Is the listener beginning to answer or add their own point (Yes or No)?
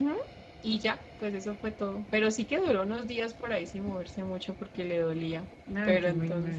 Yes